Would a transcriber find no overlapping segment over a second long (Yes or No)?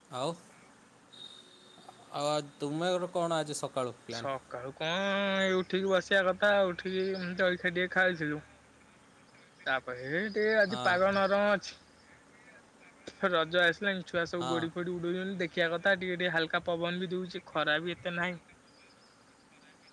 Yes